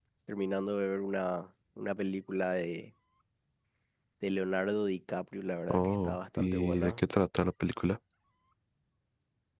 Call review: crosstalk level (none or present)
present